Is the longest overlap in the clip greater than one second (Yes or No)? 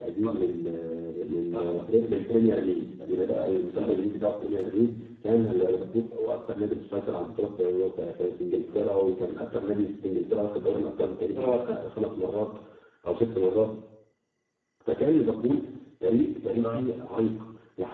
No